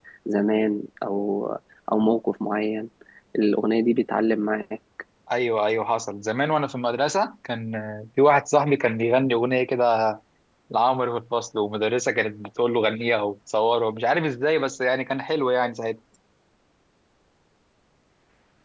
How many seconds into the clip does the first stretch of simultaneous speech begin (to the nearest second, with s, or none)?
none